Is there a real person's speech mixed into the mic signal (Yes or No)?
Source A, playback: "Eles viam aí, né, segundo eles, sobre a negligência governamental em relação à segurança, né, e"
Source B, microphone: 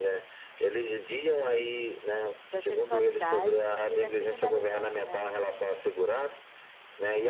Yes